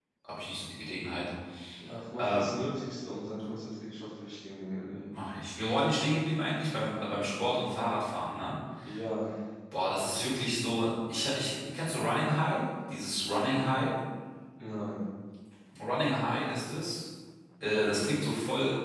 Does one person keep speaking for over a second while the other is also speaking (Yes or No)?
No